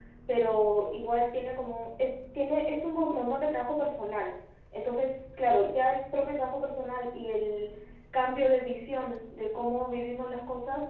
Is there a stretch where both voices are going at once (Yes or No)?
No